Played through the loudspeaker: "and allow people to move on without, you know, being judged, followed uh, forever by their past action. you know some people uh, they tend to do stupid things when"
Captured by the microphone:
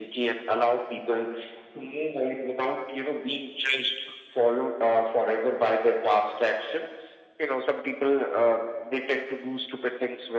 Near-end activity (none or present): none